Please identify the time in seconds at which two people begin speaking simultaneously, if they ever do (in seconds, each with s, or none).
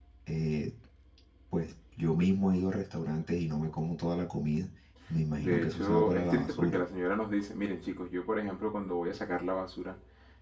5.4 s